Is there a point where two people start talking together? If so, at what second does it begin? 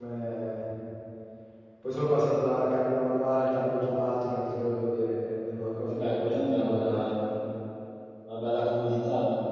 5.9 s

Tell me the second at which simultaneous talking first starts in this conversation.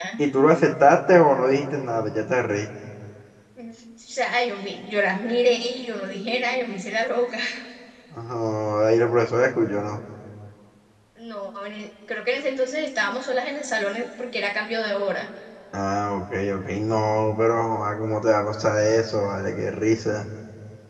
none

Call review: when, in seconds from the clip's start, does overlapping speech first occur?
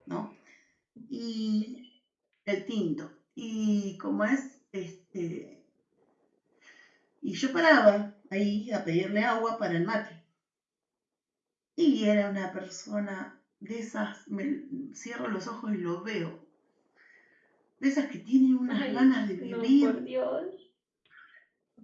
18.7 s

